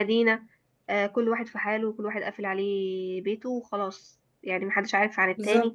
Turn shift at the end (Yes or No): No